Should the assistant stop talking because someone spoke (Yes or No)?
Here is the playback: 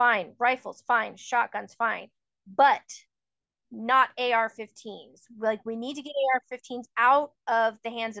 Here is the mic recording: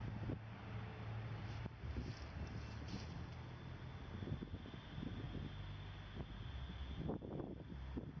No